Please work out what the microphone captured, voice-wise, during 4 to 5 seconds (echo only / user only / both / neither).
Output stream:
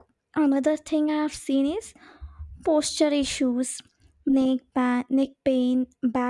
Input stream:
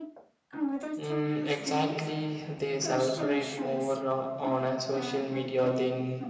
both